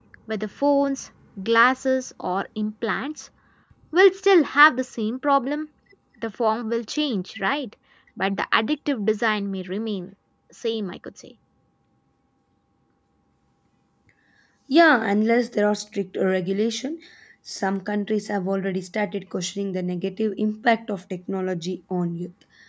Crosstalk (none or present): none